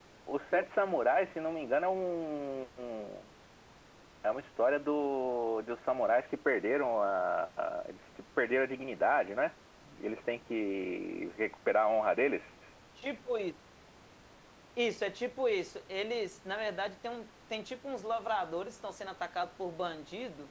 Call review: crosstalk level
none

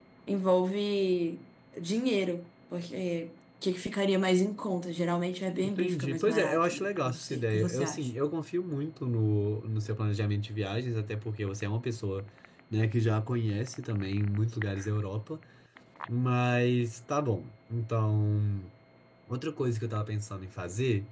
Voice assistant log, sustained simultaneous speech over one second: present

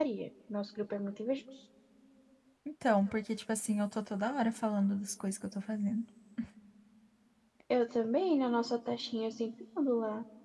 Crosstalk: none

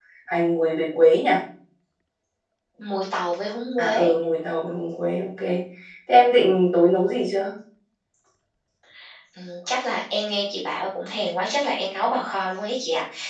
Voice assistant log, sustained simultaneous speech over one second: none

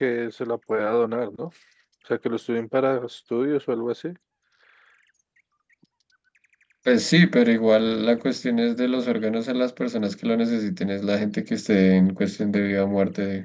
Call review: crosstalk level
none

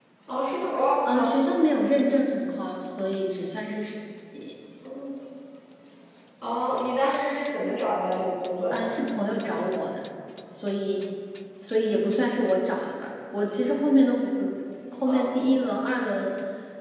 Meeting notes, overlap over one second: none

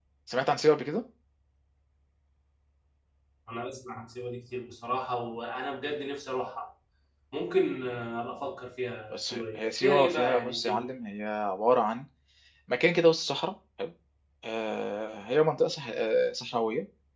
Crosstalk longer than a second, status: present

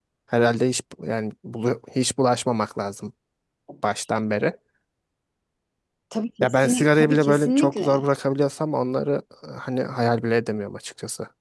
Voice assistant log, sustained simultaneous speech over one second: present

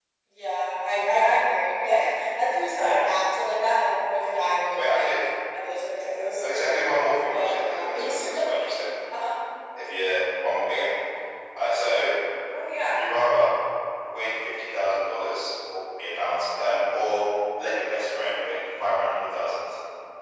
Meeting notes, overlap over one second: present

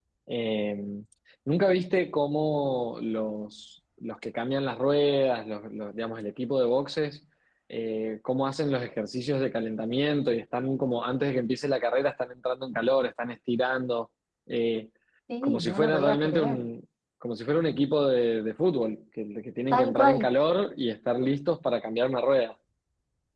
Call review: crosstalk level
present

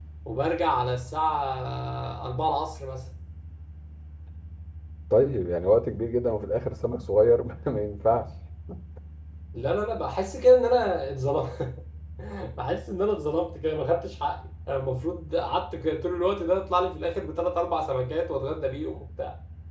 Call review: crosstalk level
none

